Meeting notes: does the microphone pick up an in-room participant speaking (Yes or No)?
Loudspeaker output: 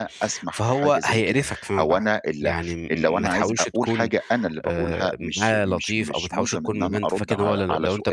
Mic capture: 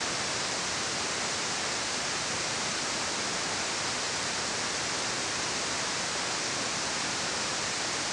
No